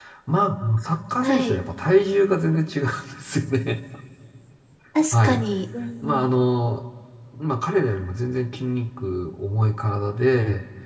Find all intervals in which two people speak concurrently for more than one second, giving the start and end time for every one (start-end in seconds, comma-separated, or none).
none